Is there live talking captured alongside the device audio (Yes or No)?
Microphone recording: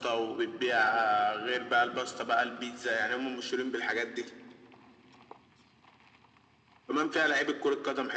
No